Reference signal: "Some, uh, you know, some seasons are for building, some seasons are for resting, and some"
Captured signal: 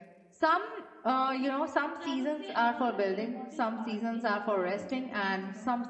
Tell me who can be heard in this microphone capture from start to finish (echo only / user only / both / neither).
both